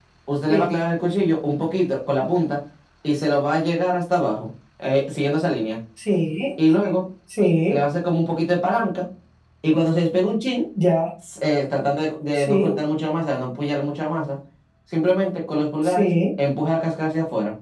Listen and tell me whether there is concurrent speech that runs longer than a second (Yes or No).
No